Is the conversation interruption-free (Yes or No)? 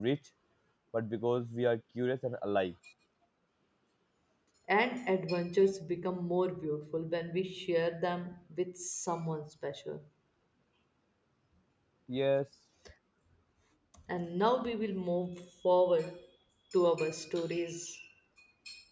Yes